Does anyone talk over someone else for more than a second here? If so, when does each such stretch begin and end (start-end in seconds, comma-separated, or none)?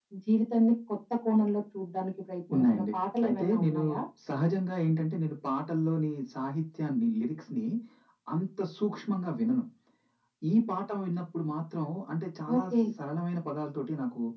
2.5-3.8